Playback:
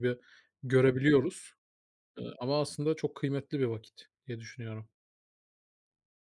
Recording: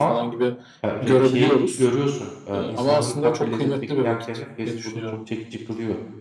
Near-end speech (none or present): present